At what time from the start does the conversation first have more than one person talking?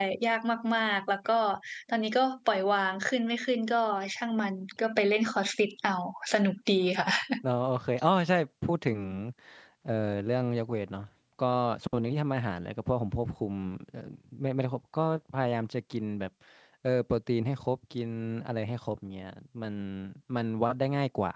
none

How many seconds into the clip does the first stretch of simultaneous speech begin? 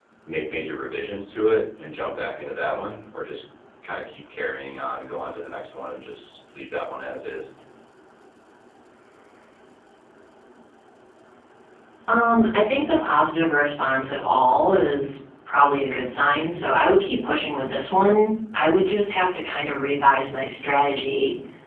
none

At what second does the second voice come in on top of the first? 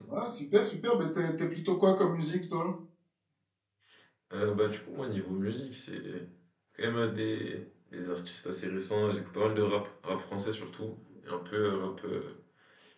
none

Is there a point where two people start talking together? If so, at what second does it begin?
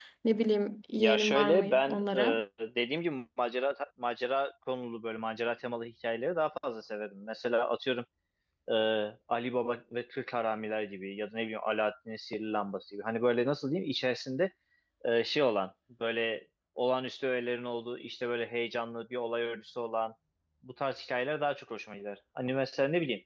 1.0 s

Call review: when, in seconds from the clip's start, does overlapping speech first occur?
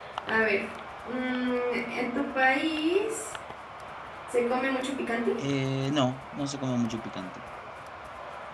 none

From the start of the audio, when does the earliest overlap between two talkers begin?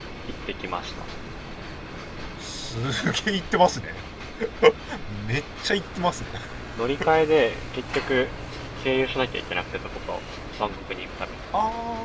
none

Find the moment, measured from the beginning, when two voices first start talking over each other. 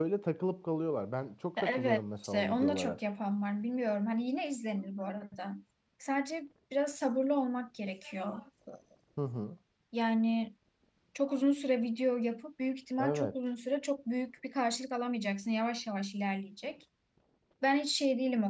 1.6 s

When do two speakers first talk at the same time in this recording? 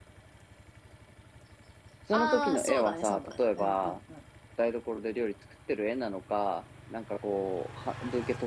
2.1 s

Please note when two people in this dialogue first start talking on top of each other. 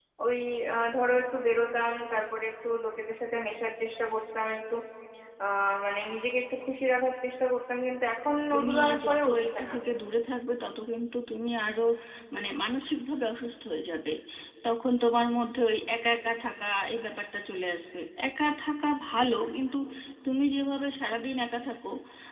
8.5 s

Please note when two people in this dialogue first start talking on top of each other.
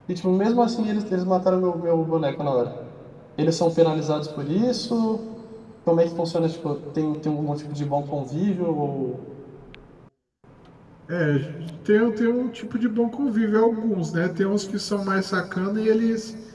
none

